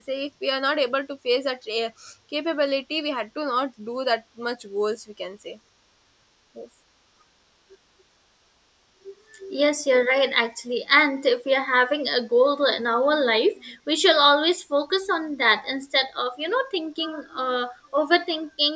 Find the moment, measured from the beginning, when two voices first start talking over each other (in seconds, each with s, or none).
none